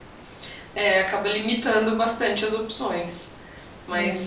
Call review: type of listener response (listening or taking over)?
listening